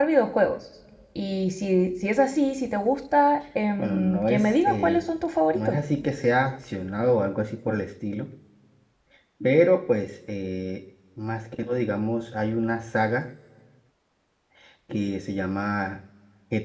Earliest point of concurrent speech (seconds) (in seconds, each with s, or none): 3.8 s